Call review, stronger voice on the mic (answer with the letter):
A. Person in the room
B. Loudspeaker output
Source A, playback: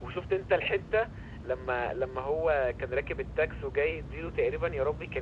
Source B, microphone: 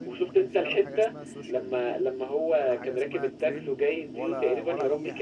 B